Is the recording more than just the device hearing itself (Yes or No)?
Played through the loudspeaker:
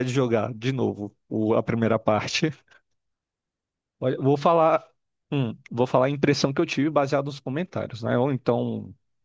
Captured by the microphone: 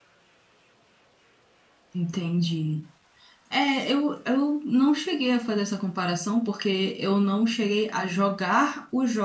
Yes